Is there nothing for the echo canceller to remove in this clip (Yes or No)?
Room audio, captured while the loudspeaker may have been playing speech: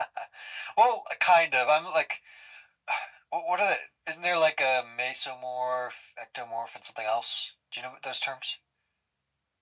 No